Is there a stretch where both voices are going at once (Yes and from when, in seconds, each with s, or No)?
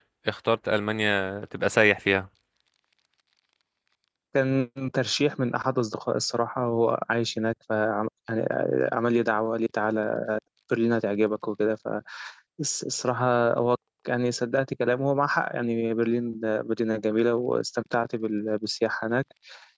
No